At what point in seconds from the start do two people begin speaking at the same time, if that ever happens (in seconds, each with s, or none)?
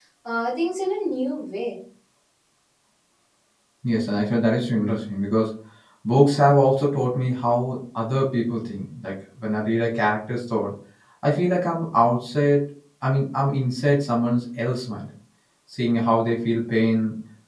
none